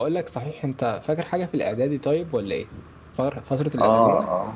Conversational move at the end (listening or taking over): taking over